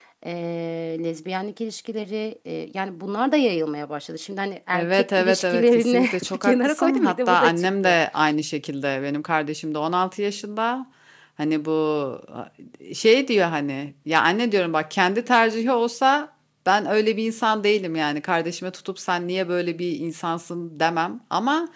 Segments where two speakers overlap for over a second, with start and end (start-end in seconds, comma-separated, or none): 4.7-8.0